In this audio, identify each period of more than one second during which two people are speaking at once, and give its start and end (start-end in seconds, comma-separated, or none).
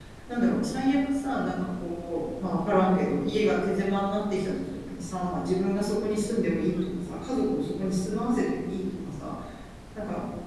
none